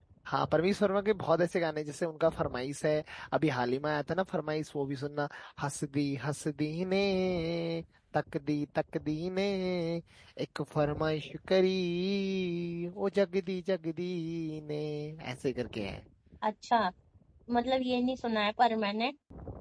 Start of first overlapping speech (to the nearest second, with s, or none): none